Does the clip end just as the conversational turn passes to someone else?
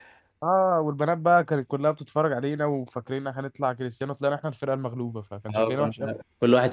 Yes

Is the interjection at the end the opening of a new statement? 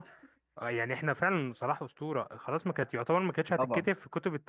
No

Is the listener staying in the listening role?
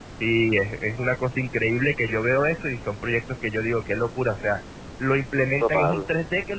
Yes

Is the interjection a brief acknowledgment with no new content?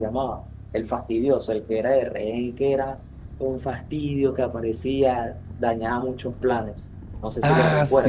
No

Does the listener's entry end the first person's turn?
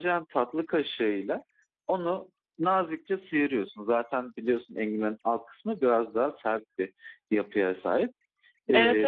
Yes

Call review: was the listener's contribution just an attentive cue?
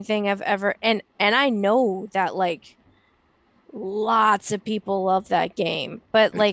Yes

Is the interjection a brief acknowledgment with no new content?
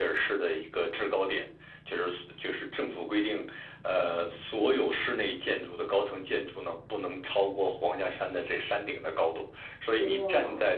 Yes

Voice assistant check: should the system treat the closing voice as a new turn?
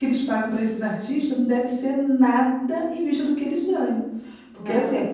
No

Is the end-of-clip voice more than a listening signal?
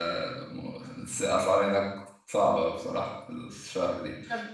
No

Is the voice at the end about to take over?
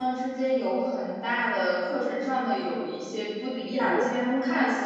No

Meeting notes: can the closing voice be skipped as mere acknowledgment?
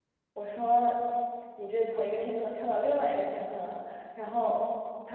Yes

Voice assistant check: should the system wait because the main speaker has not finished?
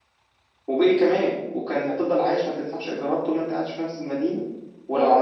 Yes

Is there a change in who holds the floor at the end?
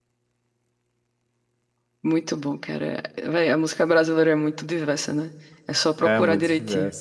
Yes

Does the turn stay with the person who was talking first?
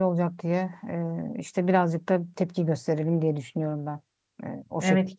No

